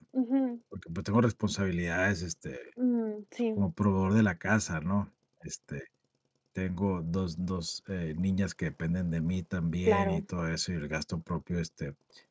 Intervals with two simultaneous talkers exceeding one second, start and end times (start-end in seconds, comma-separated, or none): none